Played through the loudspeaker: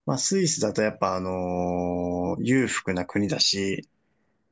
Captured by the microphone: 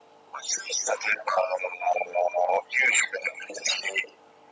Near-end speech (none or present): none